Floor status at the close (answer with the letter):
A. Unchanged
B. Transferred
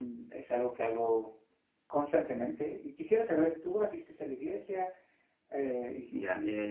B